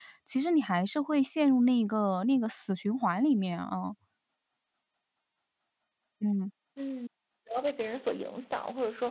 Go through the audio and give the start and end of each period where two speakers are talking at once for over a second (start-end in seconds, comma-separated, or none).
none